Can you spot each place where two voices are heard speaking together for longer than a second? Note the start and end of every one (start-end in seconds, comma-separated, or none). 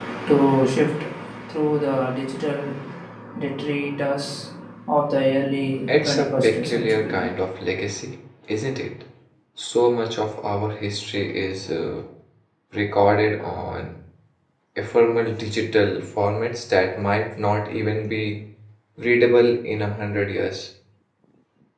5.9-7.1